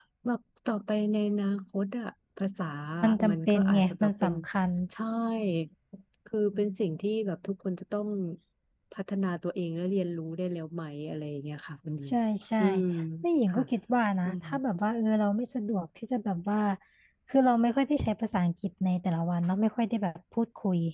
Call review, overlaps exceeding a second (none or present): present